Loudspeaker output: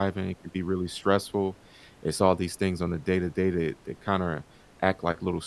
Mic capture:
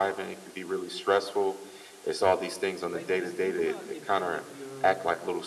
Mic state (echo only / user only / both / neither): both